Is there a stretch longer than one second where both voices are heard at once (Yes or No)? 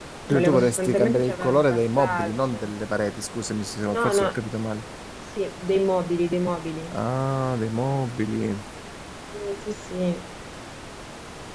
Yes